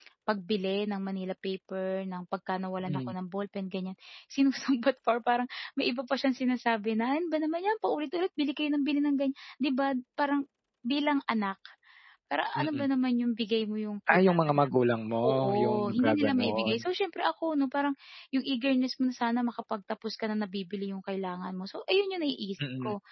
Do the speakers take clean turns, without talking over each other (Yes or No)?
No